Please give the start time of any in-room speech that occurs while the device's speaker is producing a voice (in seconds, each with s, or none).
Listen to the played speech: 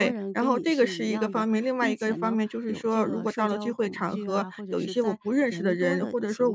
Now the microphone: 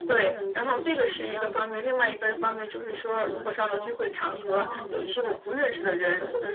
4.5 s